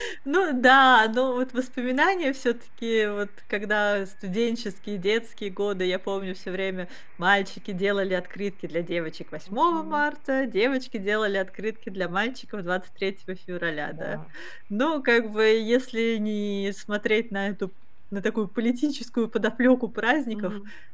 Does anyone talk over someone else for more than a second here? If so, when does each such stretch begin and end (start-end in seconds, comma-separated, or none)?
none